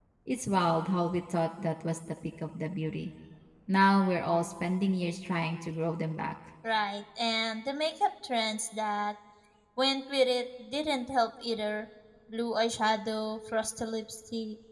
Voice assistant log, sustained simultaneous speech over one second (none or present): none